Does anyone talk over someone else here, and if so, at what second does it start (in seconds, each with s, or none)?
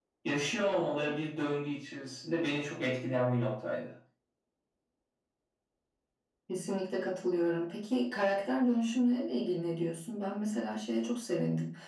none